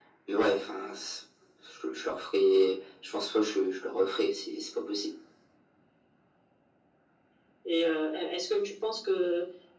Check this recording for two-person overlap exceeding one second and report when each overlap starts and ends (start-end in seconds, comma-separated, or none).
none